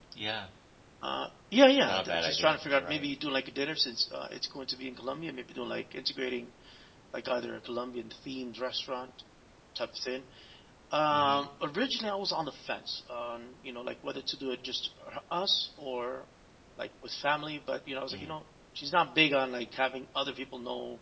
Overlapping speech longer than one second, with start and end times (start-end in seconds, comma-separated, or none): 1.8-3.1